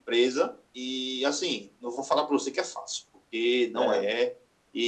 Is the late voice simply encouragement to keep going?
Yes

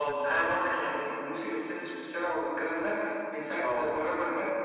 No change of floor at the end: Yes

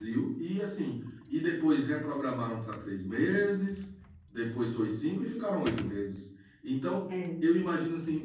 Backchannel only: Yes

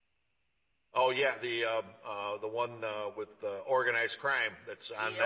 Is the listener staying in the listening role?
No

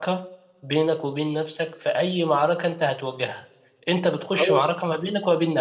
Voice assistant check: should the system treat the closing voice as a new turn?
No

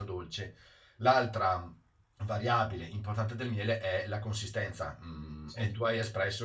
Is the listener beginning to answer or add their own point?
No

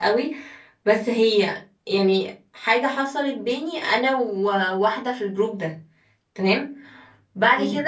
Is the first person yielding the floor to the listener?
No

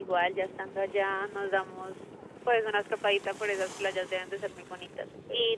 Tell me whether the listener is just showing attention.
Yes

